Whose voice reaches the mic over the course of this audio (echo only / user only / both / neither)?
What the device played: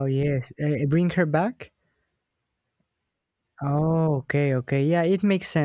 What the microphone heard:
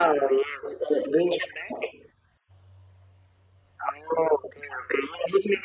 echo only